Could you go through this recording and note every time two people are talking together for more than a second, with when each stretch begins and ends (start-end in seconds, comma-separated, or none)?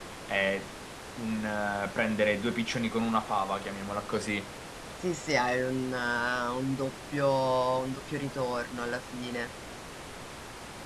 none